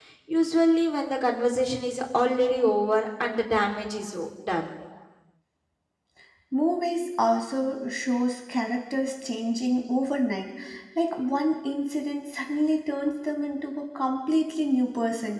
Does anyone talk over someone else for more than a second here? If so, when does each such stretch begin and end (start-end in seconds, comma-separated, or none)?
none